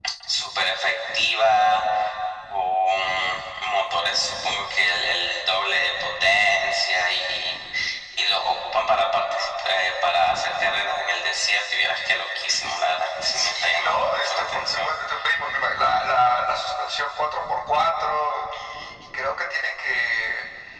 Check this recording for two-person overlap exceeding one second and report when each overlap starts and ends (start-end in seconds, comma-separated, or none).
13.3-14.9